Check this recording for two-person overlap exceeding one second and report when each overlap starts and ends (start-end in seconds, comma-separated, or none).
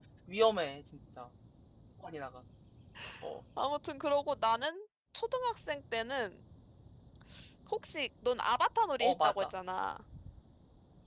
none